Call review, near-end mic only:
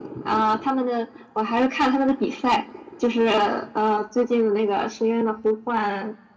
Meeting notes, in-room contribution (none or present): none